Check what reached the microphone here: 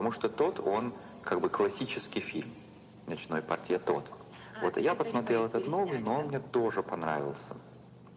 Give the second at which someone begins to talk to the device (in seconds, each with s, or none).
4.5 s